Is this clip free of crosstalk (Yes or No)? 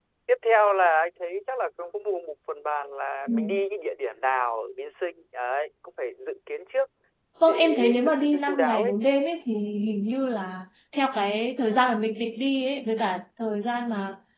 No